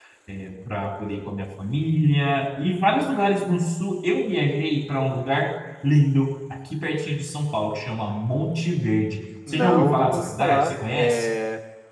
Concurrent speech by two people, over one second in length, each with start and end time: 9.5-11.3

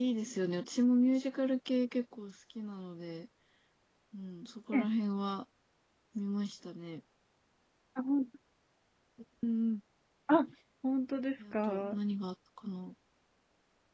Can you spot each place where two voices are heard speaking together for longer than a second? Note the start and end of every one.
none

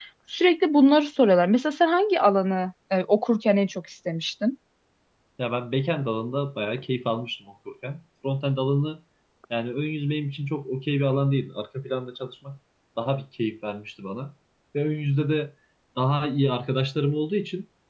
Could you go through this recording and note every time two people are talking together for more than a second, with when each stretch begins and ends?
none

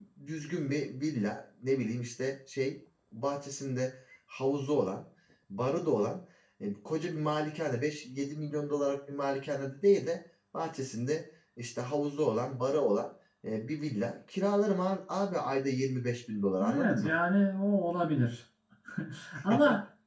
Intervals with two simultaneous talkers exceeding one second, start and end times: none

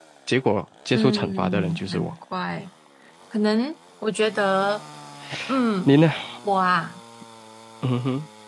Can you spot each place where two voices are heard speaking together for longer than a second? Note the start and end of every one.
0.9-2.1

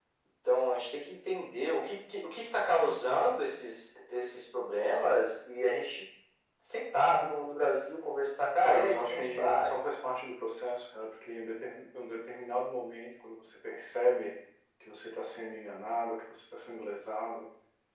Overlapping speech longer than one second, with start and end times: 8.6-9.8

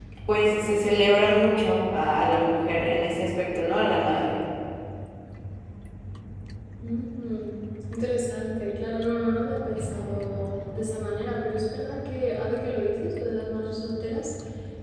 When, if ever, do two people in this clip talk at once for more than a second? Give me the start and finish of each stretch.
none

